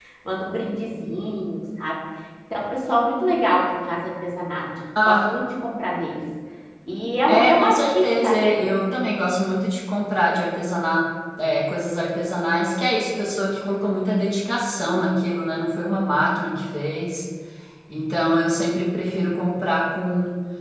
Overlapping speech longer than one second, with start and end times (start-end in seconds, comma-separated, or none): 7.3-8.6